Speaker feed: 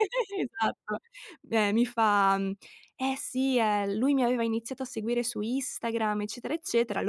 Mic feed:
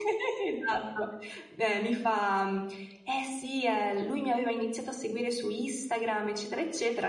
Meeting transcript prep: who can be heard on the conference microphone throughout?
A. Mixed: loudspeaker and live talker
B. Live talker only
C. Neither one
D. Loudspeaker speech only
D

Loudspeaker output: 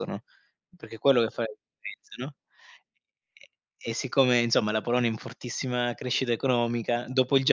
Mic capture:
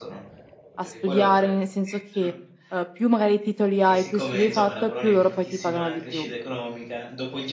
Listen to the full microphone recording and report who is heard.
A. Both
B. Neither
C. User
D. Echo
A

